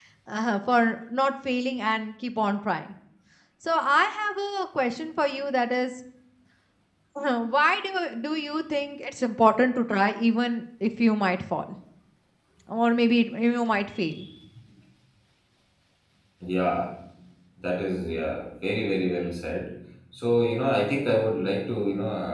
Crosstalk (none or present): none